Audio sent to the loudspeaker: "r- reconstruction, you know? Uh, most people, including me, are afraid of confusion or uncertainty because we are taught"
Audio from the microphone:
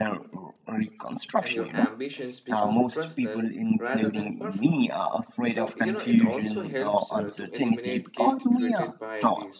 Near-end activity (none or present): present